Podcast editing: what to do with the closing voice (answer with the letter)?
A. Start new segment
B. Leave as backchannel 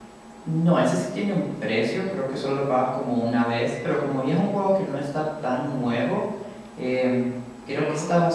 B